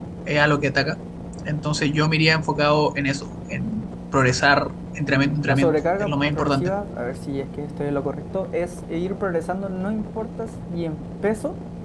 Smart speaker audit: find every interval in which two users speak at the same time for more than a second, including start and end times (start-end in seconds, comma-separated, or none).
5.1-6.7